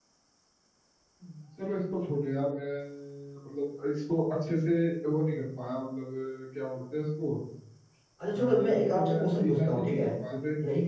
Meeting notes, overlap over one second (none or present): present